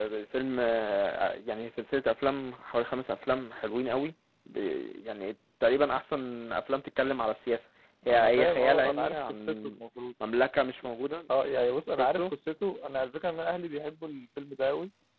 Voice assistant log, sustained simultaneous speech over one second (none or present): present